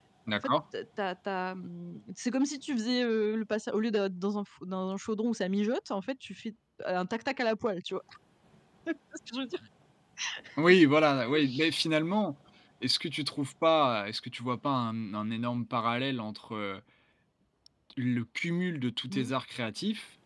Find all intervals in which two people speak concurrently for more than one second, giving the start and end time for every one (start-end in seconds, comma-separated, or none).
none